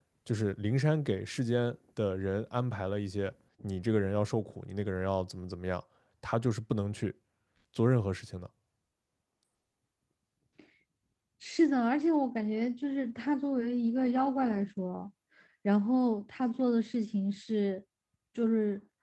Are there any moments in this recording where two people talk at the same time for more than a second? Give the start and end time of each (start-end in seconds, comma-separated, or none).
none